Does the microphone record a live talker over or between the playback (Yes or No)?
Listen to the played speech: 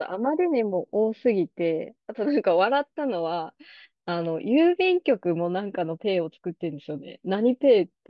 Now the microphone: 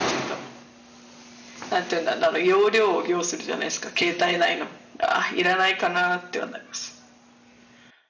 Yes